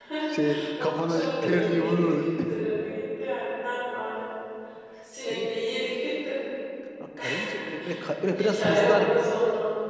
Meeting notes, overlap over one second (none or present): present